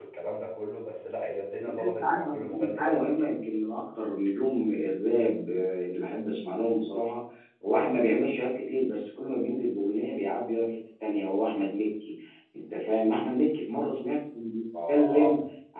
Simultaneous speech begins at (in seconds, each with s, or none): 1.6 s